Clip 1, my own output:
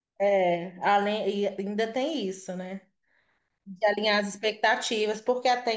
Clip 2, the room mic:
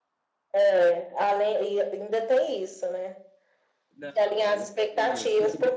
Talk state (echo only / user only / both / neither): both